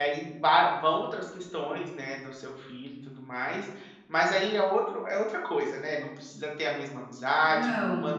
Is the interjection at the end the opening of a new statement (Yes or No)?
No